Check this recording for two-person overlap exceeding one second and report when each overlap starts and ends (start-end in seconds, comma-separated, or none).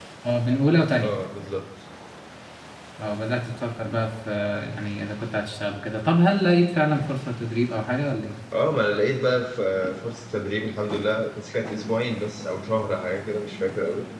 none